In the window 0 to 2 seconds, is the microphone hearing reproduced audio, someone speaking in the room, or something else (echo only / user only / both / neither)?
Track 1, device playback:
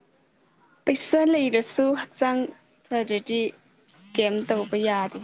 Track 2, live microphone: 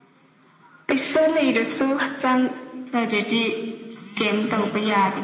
echo only